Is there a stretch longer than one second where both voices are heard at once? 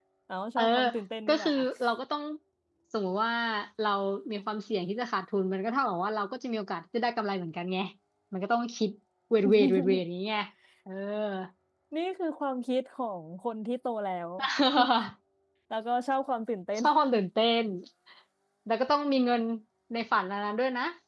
No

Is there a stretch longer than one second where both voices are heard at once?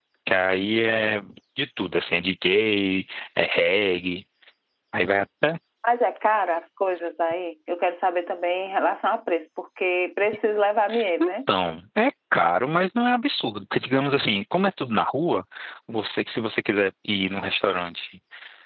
No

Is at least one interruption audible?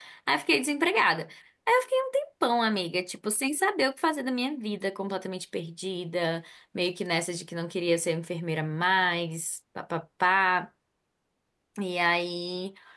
No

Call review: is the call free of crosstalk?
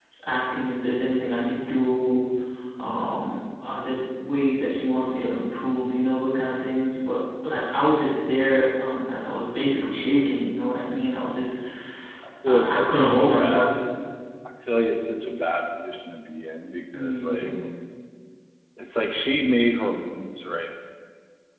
No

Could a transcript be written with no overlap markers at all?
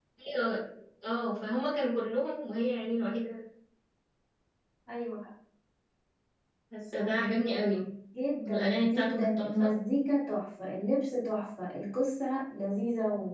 No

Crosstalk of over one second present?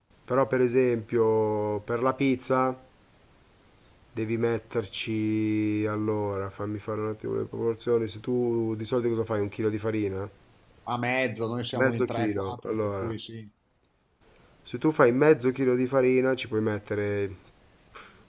Yes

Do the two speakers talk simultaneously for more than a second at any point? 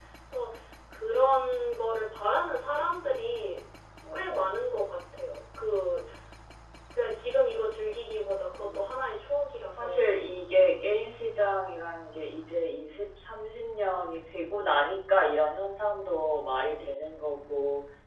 No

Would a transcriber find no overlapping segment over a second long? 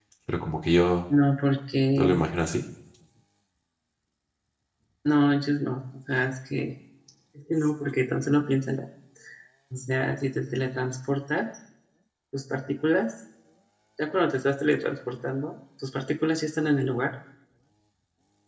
Yes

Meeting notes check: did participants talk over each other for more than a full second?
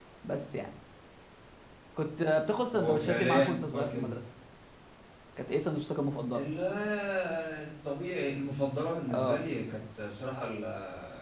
Yes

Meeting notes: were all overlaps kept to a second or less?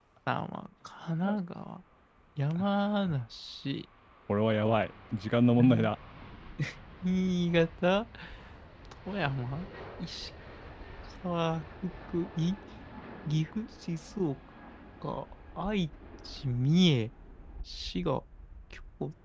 Yes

